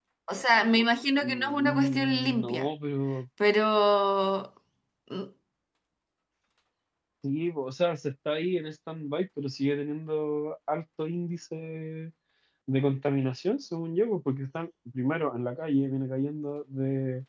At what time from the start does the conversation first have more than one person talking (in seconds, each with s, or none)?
1.2 s